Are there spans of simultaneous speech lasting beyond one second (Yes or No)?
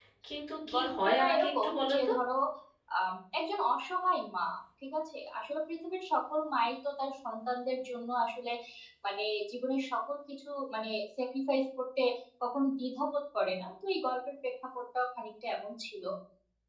Yes